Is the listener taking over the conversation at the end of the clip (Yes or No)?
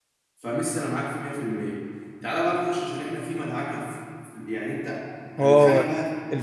Yes